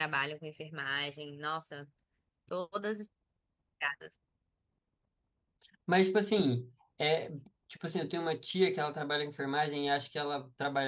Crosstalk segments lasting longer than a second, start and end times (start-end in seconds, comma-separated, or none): none